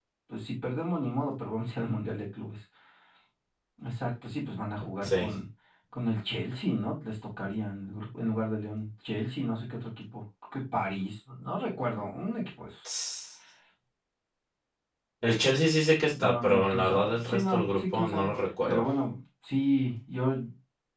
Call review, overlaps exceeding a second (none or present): present